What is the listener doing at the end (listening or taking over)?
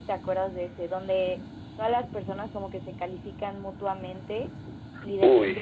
listening